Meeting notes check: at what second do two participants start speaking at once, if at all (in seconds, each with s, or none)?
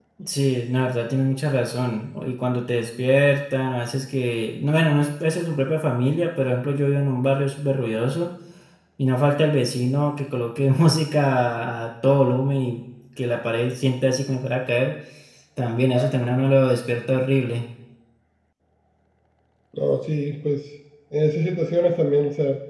none